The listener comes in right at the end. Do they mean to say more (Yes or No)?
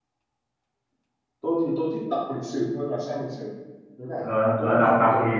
Yes